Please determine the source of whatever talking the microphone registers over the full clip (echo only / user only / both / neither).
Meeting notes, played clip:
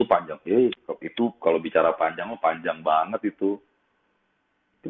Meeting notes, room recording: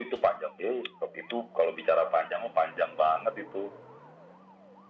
echo only